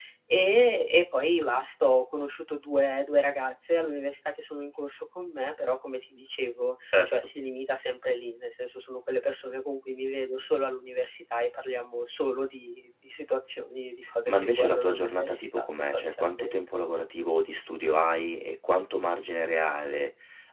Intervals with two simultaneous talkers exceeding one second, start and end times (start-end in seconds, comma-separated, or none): 14.3-16.8